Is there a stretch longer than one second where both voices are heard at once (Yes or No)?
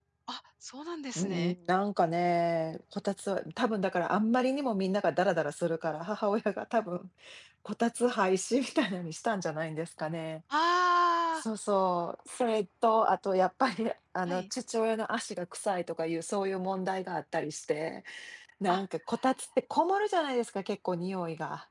No